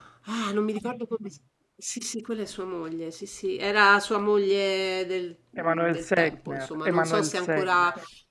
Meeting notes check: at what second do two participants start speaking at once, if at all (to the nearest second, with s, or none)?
6 s